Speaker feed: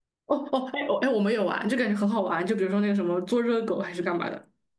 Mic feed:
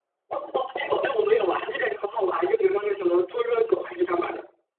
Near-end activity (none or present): none